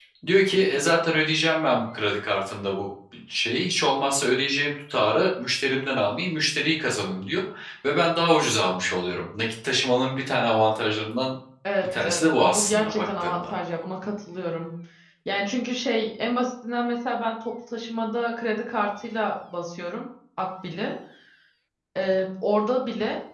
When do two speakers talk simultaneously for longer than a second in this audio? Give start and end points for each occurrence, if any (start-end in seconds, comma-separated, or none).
11.8-13.5